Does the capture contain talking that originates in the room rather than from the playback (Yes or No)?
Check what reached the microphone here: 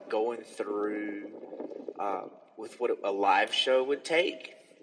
No